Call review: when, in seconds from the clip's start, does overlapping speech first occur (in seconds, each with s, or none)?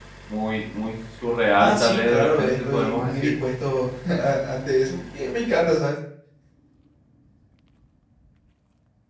1.6 s